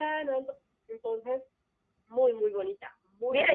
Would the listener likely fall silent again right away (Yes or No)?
No